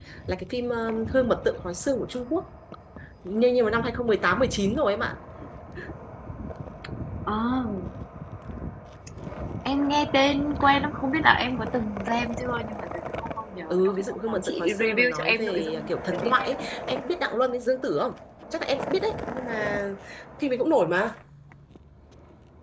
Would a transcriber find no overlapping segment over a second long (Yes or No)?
No